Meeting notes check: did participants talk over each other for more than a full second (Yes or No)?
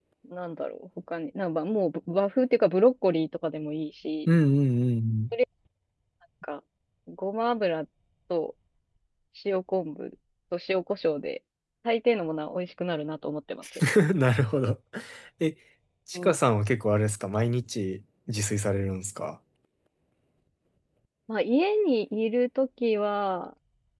No